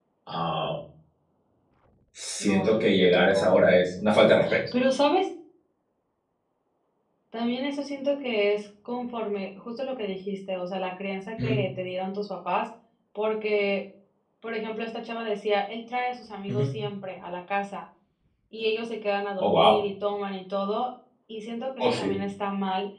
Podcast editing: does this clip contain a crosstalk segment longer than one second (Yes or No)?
Yes